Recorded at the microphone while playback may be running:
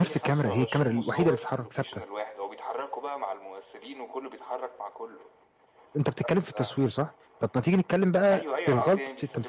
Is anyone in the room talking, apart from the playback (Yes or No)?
Yes